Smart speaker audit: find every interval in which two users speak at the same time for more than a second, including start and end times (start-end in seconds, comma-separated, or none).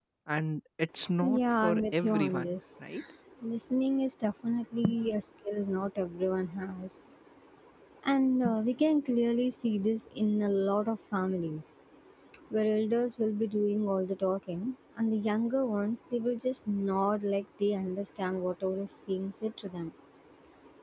1.2-2.5